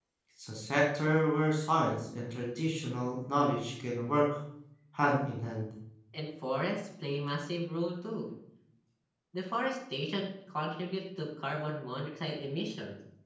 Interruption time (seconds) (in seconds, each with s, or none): none